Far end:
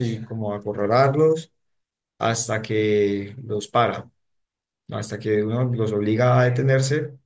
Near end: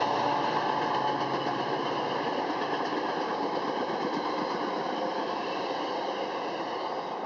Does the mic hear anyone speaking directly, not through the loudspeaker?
No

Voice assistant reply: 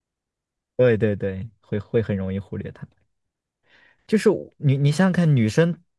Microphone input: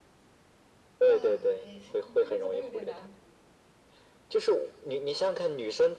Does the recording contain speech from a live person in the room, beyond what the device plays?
Yes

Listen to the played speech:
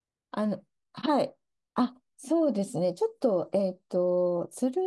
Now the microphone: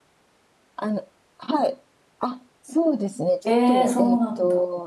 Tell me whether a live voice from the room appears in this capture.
Yes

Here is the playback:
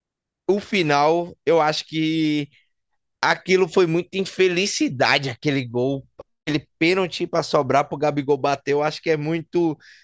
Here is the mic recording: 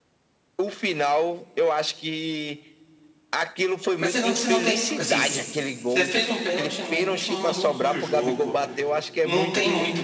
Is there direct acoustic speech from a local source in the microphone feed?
Yes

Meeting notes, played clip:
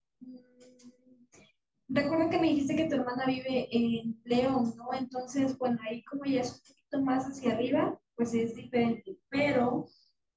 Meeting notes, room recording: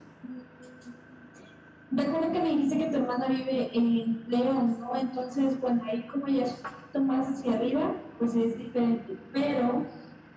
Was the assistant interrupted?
No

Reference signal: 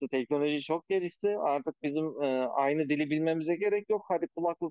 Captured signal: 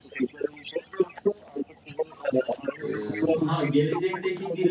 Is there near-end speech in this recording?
Yes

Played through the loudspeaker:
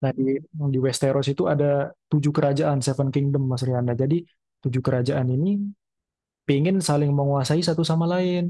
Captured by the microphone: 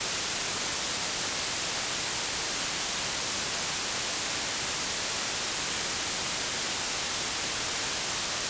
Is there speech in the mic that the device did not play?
No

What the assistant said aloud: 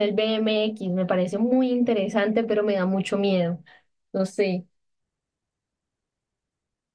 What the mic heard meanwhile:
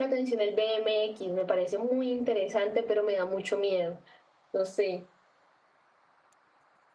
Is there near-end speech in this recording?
No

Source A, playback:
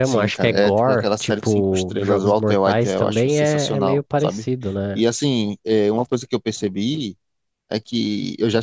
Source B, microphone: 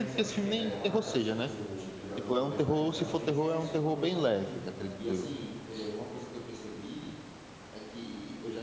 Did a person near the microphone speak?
Yes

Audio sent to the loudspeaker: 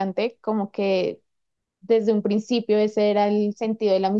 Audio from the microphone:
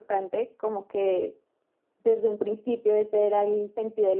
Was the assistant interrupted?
No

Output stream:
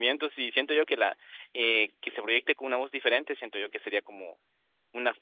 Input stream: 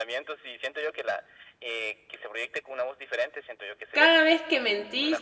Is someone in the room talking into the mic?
Yes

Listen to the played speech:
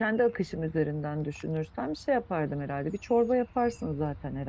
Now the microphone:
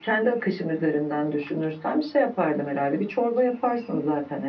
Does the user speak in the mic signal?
No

